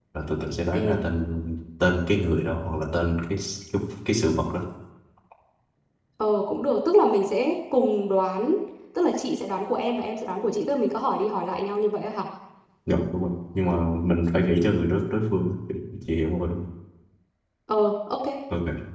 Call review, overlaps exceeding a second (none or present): none